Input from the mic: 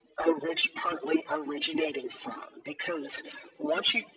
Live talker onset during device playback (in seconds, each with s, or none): none